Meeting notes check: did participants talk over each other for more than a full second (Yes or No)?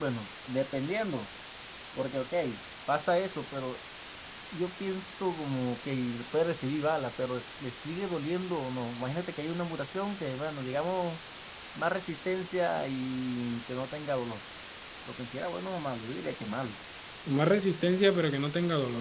No